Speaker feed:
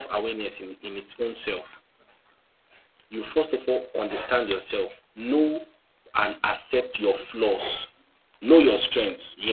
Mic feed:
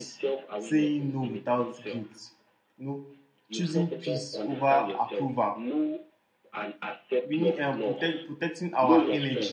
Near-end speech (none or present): present